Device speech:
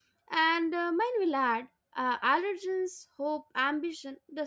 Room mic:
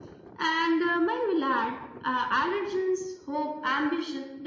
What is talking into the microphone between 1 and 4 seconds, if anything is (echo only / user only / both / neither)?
echo only